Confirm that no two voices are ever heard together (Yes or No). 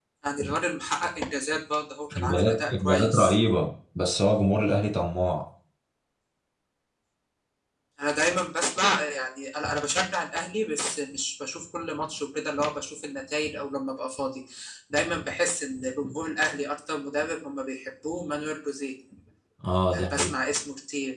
No